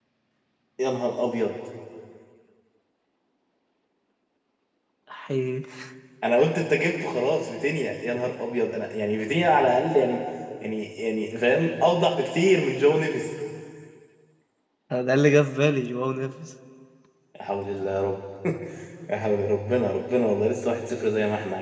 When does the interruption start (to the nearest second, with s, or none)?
none